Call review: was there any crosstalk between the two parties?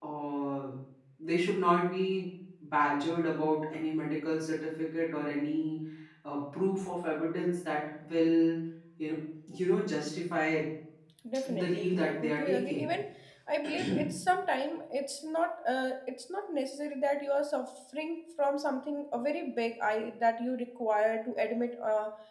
Yes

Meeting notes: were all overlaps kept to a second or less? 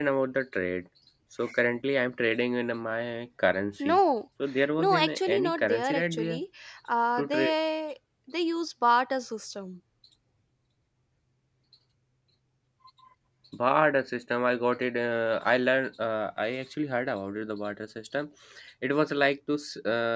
No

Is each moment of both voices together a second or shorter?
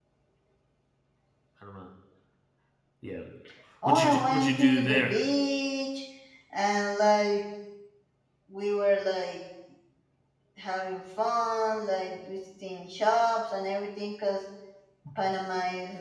No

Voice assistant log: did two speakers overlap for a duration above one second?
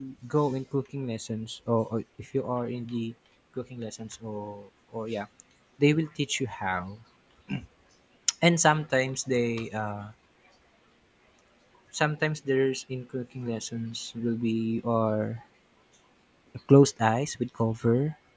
No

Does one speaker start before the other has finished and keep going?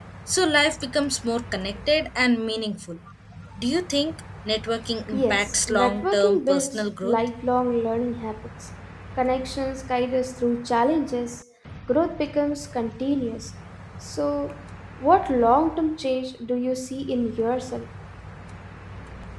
Yes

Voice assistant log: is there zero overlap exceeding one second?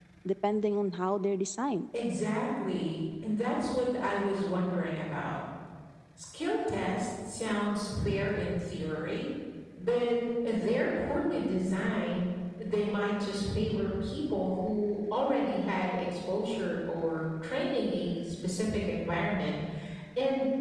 Yes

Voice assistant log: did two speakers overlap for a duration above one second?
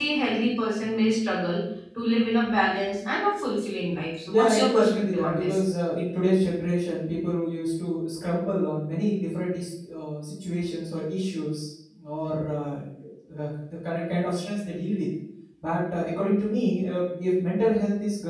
Yes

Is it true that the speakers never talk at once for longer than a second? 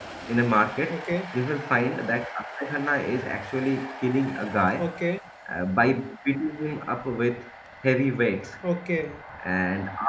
Yes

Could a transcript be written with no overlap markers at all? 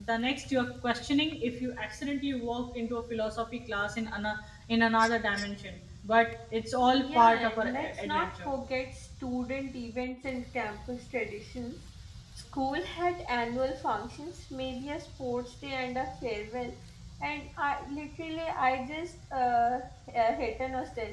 No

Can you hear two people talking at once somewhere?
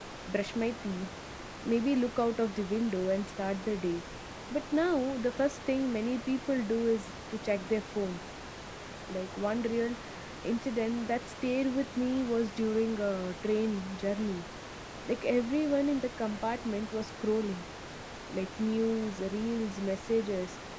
No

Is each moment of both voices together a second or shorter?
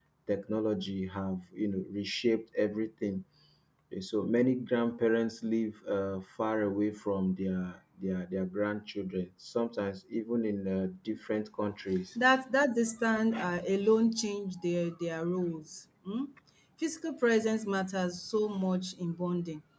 Yes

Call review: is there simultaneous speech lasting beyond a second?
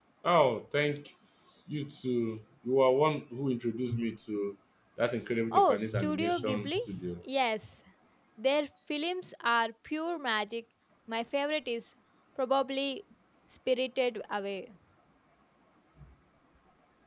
Yes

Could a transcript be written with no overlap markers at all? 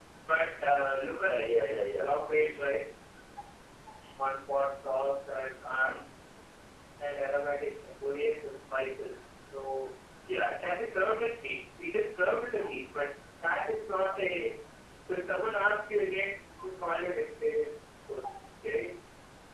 No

